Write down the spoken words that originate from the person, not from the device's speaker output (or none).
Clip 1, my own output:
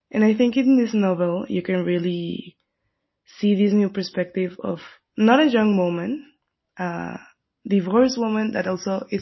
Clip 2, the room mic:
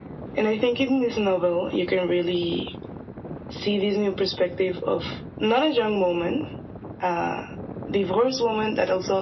none